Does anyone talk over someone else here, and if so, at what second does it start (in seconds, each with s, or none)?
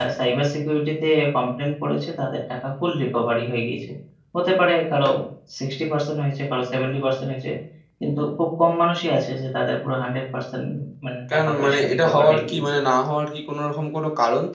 11.3 s